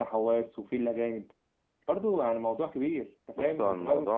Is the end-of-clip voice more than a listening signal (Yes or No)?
Yes